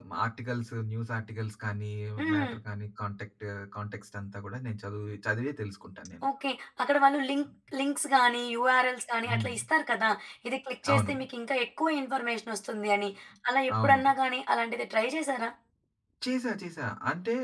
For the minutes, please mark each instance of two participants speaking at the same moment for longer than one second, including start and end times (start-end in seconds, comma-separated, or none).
none